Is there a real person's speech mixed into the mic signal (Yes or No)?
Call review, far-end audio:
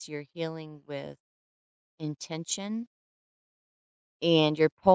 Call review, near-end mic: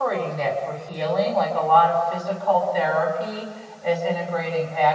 Yes